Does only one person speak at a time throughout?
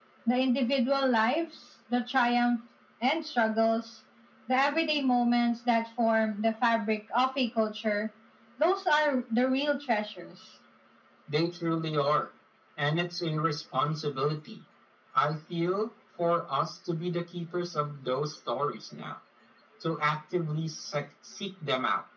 Yes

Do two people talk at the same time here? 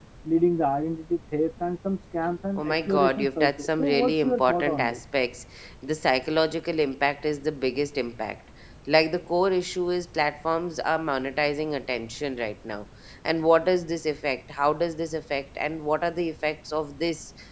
Yes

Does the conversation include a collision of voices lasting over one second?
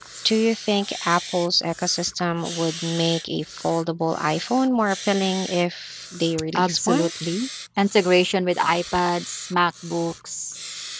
No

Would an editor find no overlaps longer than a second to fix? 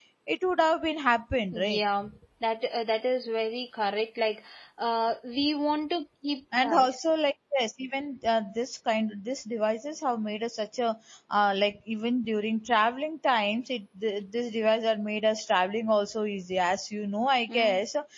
Yes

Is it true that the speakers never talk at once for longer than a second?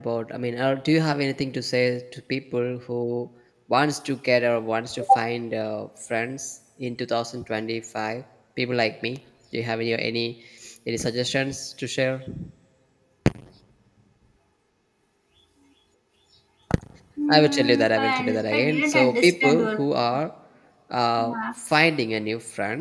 No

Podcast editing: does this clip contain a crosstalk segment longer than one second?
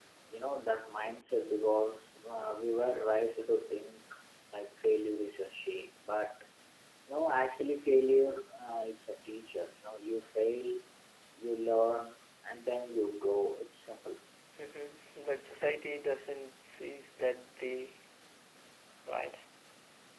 No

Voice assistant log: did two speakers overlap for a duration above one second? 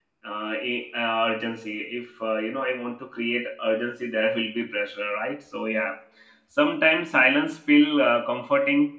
No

